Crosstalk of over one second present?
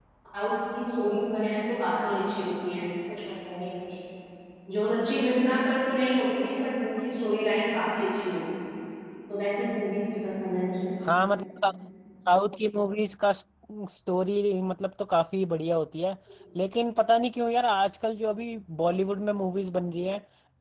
No

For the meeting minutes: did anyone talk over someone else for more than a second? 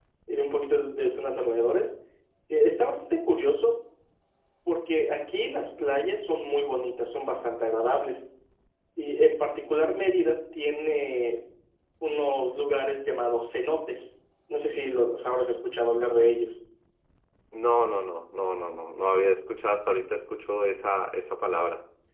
No

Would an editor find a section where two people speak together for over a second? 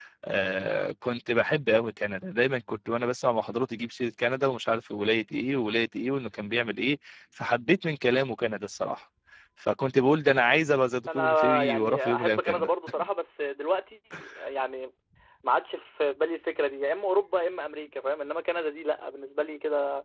Yes, from 11.1 s

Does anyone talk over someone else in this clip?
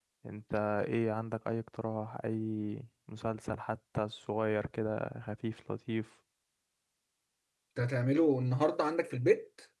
No

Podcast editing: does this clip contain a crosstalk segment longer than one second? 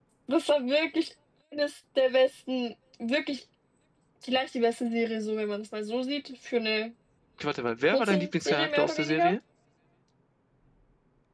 Yes, from 7.9 s

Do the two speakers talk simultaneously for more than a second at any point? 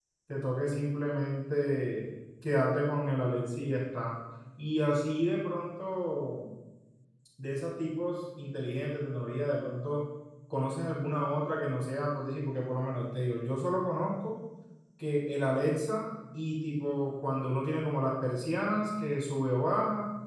No

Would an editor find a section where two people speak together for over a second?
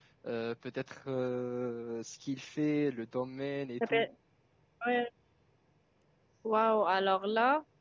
No

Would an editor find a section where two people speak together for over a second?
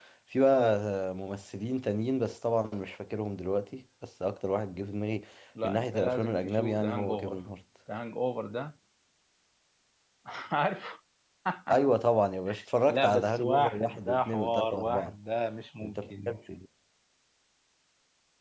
Yes, from 5.6 s

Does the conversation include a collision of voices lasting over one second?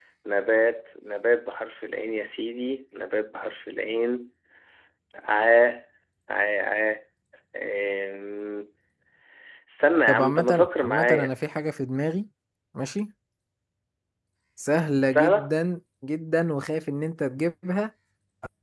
Yes, from 10.1 s

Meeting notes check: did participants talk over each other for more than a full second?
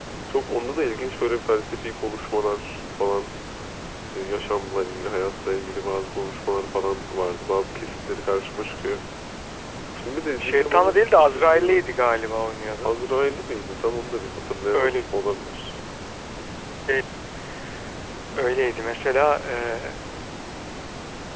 Yes, from 10.4 s

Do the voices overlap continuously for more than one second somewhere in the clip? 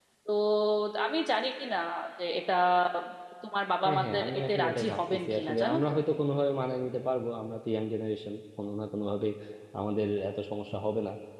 Yes, from 3.8 s

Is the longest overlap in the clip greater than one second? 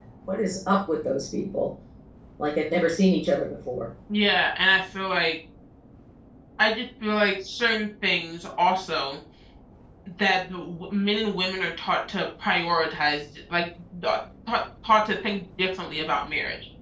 No

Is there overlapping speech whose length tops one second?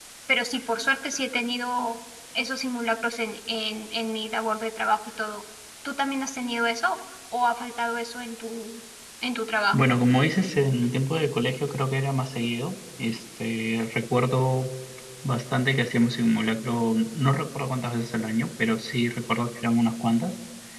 No

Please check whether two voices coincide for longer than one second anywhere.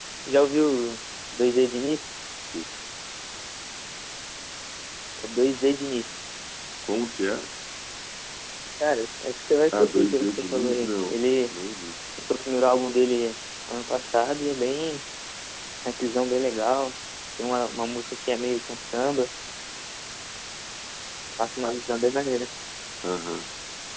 Yes, from 9.7 s

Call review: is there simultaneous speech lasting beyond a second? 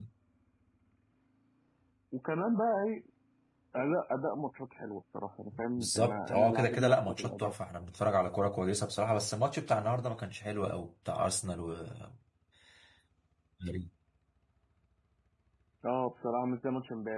Yes, from 5.5 s

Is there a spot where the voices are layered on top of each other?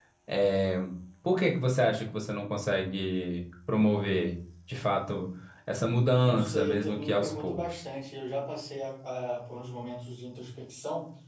Yes, from 6.2 s

